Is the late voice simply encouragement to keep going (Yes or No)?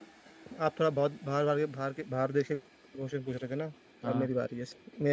Yes